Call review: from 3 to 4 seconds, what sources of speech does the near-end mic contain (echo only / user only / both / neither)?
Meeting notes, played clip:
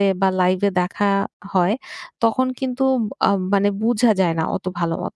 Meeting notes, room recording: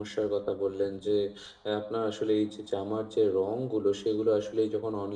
user only